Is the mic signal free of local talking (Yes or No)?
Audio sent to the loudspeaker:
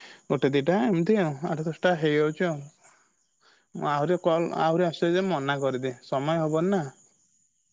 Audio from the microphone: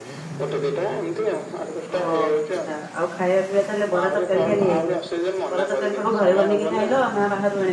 No